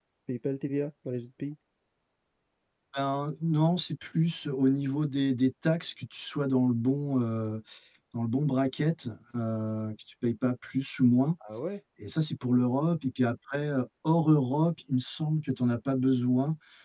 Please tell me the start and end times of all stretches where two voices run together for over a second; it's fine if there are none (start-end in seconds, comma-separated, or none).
none